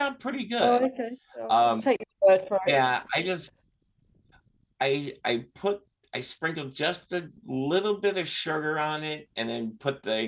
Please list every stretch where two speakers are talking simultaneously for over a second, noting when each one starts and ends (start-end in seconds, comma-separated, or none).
none